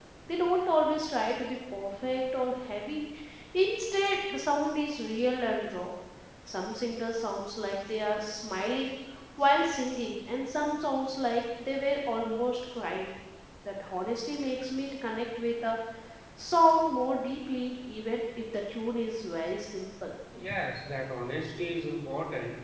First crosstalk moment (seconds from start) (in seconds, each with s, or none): none